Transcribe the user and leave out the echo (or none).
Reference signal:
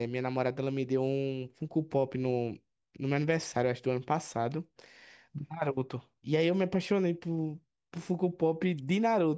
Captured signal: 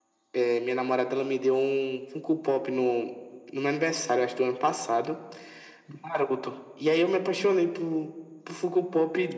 none